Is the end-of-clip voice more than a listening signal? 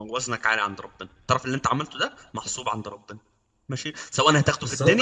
Yes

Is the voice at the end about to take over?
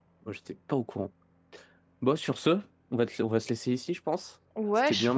Yes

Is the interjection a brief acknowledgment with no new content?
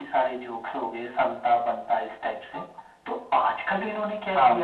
Yes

